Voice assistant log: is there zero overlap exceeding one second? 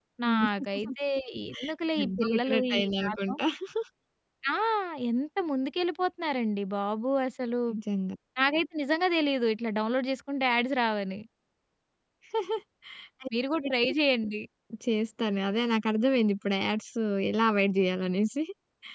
No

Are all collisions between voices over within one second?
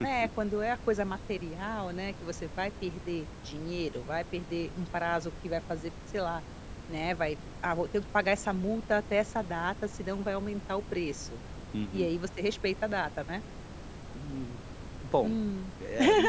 Yes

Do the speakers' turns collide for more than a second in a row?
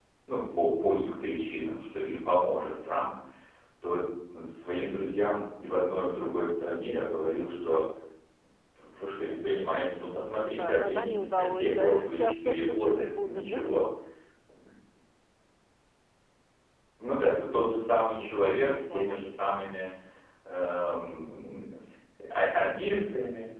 Yes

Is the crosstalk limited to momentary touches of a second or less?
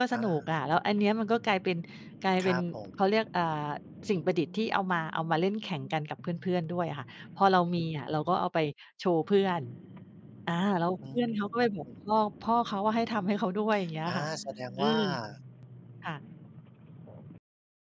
Yes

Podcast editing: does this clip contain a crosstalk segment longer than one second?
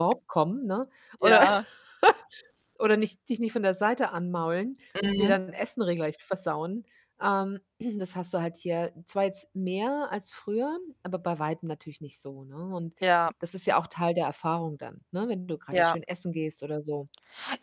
No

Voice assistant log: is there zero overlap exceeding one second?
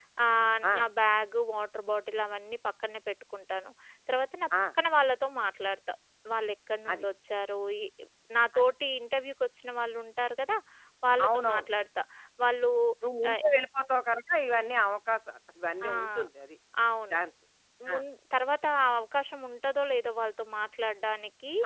Yes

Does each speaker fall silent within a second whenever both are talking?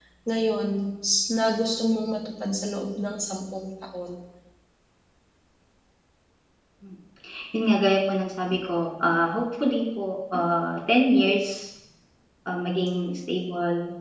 Yes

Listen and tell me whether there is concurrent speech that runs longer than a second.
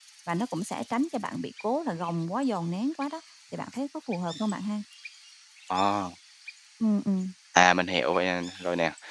No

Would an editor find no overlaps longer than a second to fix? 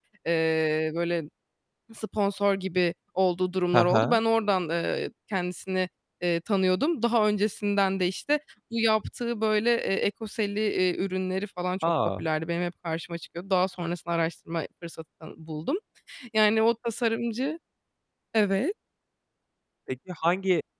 Yes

